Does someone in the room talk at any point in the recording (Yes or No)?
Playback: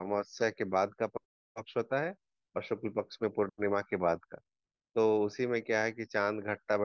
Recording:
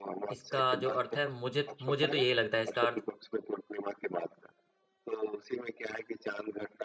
Yes